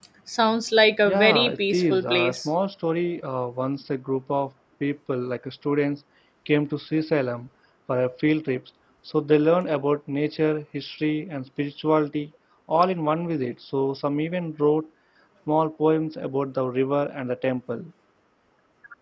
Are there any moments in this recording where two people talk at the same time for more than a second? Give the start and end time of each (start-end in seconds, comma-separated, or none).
1.1-2.5